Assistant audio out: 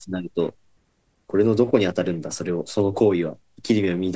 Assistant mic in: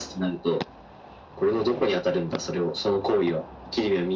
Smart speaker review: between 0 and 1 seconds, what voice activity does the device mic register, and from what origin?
echo only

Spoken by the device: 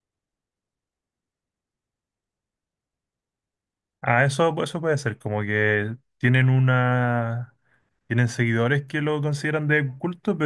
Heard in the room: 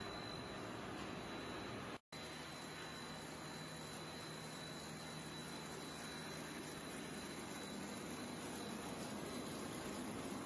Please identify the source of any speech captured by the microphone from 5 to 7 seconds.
neither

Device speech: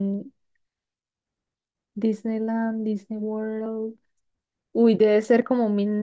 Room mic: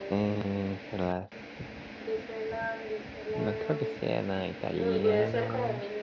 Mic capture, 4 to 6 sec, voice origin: both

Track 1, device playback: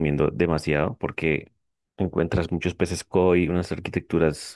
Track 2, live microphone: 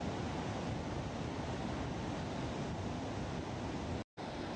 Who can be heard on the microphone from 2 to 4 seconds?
neither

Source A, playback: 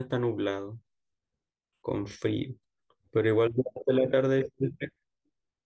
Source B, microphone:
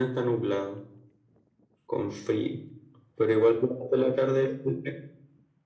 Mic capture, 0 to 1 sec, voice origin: echo only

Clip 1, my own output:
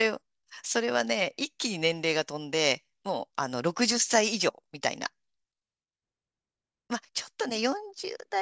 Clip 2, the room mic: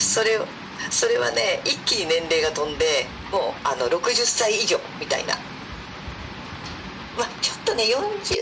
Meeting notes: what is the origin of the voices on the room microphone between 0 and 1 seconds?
echo only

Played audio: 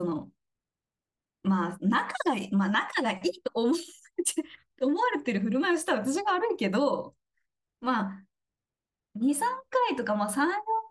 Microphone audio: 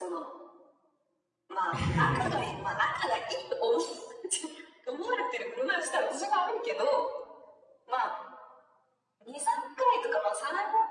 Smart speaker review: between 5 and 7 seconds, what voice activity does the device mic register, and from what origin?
echo only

